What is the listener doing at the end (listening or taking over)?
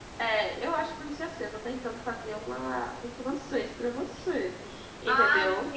taking over